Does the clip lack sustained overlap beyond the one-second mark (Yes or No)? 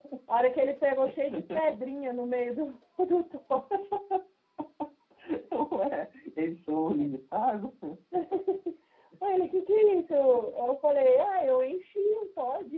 Yes